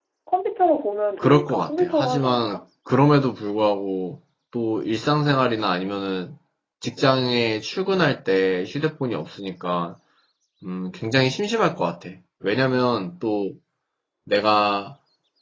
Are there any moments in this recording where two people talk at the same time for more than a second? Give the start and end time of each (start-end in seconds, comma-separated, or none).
1.2-2.6